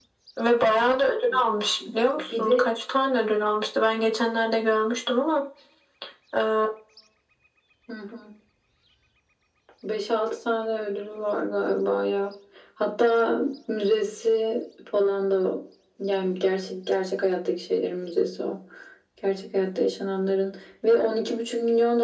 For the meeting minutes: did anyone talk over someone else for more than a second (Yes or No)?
No